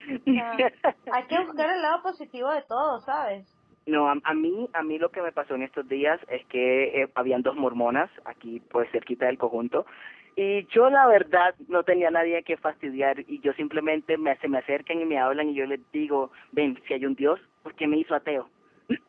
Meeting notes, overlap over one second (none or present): none